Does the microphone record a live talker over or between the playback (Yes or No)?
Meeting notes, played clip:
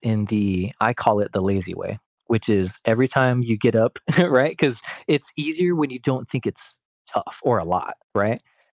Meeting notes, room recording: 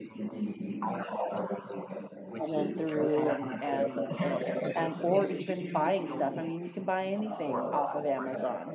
Yes